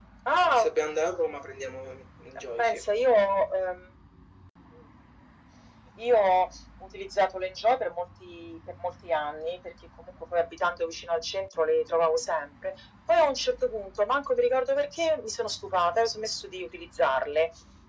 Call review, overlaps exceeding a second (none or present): none